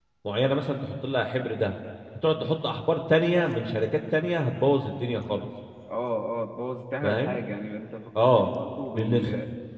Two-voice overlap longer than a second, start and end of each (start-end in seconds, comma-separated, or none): none